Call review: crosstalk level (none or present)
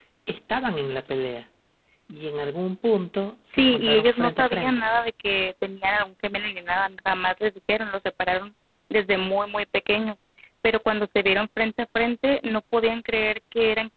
present